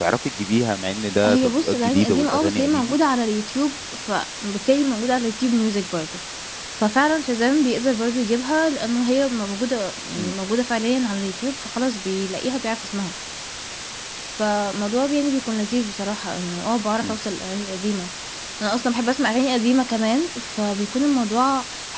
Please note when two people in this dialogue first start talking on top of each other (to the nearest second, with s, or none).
1 s